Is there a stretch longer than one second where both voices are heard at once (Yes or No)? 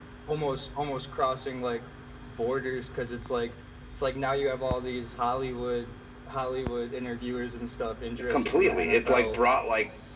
Yes